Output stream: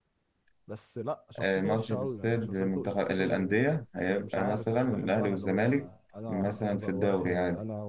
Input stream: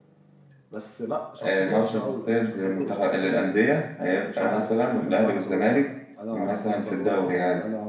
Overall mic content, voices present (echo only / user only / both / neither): echo only